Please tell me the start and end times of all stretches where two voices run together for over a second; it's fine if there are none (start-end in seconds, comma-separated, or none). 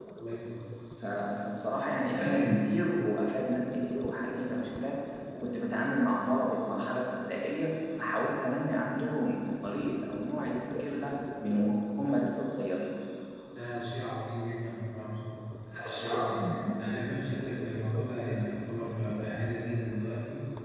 none